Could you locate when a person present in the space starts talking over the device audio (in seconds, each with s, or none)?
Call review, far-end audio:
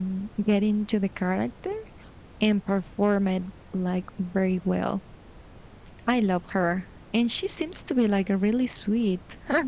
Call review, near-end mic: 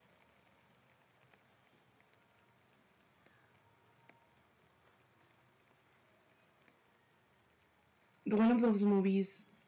8.2 s